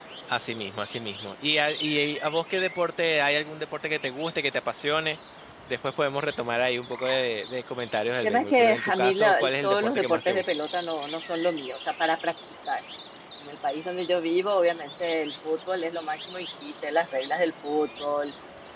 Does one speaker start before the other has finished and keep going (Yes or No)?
Yes